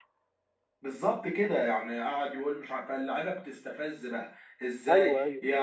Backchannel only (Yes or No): Yes